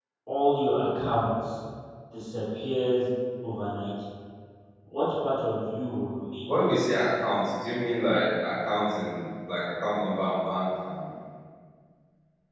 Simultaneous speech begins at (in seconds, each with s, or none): none